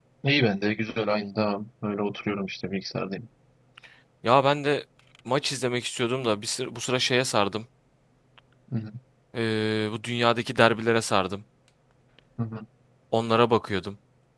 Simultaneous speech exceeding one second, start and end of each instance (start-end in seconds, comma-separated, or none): none